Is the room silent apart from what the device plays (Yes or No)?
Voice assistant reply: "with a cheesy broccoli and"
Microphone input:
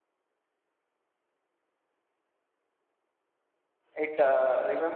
No